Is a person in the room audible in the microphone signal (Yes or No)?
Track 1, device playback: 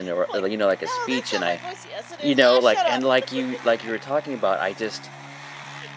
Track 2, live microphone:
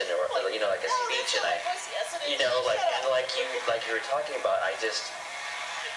Yes